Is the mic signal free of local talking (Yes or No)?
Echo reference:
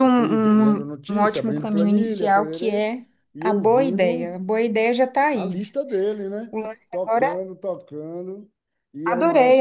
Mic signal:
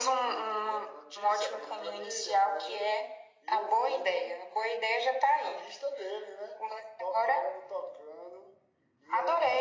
Yes